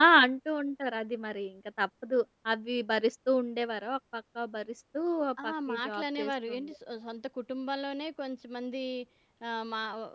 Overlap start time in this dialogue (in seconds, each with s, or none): 5.4 s